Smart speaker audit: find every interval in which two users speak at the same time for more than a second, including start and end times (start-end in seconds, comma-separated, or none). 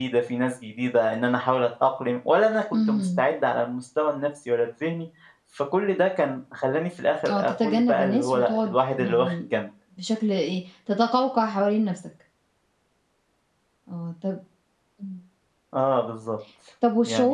7.3-9.3